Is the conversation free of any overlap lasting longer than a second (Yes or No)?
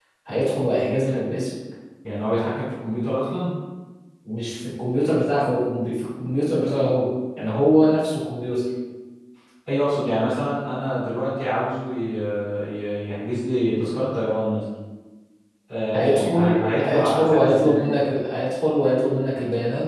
No